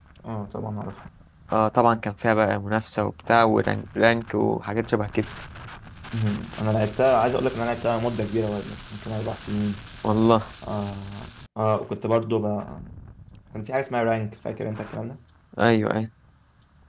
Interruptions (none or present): none